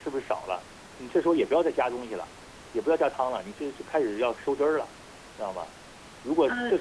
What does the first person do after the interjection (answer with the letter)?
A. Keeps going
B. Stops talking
A